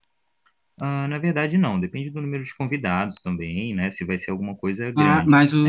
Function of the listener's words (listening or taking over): taking over